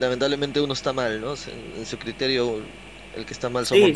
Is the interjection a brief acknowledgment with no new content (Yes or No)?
No